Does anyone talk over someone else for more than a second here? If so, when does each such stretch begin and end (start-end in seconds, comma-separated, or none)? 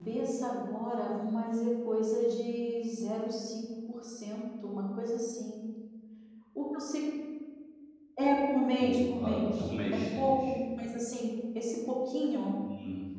8.8-10.5